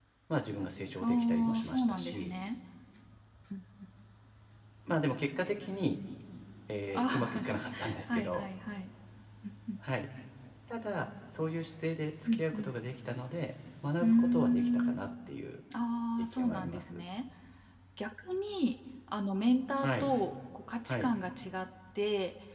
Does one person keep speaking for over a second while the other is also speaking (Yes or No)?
Yes